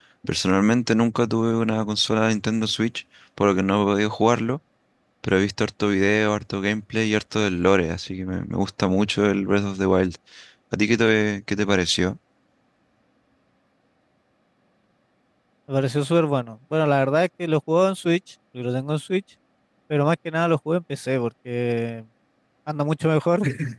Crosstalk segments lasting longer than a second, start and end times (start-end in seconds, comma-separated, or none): none